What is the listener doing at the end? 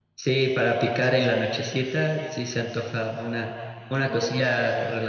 listening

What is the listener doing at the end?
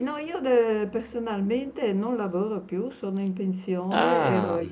listening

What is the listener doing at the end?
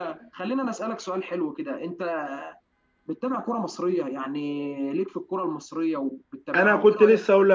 taking over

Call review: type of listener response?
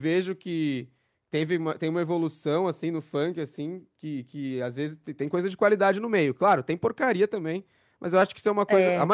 listening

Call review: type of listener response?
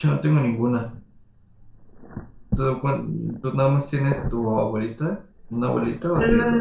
taking over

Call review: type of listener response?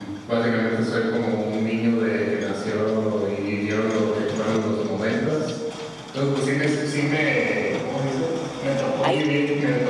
listening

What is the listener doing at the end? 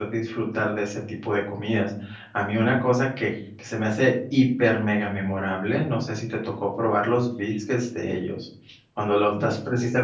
listening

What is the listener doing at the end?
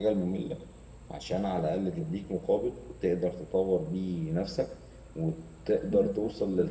listening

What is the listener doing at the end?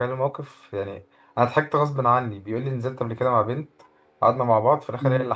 listening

